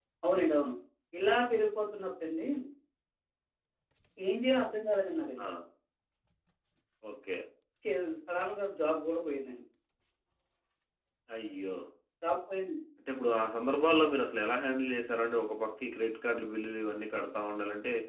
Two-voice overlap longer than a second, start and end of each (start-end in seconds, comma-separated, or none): none